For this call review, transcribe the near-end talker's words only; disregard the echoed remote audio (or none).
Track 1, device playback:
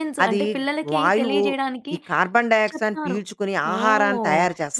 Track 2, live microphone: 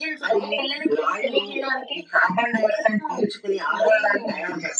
none